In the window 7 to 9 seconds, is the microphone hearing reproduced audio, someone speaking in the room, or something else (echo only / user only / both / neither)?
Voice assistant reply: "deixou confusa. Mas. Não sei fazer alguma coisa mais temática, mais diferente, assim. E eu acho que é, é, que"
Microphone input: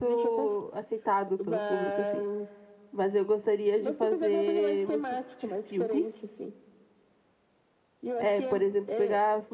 both